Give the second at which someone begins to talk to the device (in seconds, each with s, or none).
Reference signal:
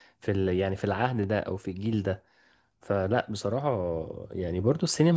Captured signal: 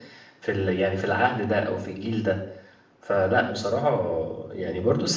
none